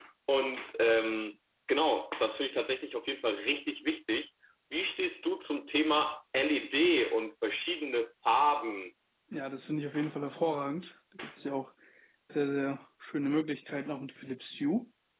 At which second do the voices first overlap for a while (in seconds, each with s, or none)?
none